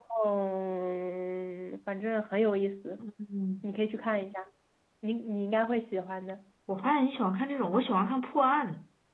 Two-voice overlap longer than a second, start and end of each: none

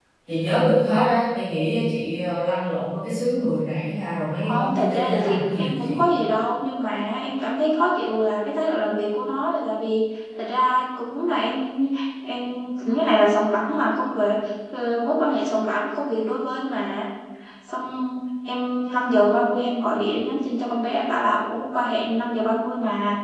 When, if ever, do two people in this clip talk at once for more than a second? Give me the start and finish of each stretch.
4.5-6.1

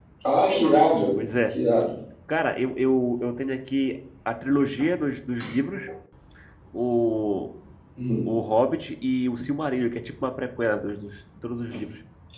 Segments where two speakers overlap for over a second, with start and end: none

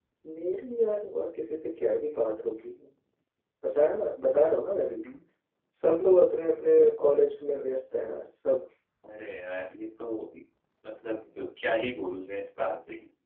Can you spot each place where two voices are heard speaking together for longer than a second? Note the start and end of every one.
none

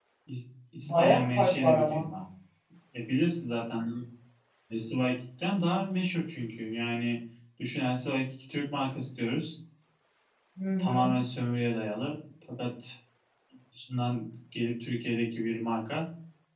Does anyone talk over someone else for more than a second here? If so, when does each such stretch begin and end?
0.8-2.1

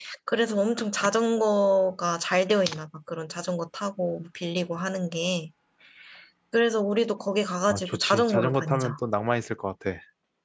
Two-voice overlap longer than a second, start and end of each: 7.7-8.9

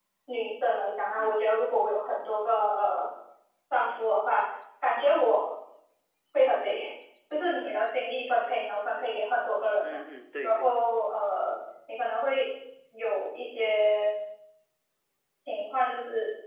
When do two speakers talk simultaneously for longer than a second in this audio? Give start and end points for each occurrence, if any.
none

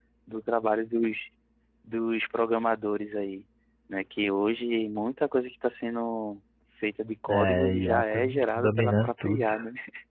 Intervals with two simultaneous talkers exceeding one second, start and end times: 7.3-9.5

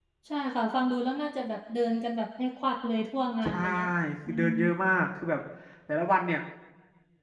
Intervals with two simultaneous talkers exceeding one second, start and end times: none

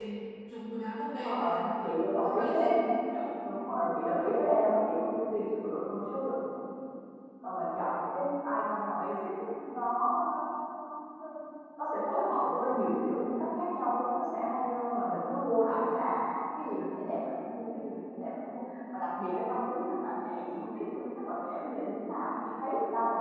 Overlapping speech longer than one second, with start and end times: 1.1-2.8

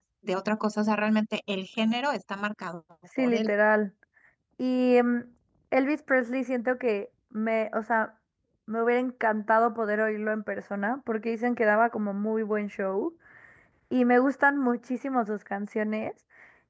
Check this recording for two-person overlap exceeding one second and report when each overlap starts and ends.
none

